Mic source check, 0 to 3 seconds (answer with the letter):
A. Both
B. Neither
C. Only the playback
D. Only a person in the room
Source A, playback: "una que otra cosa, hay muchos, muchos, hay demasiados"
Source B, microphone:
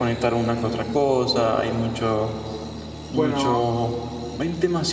C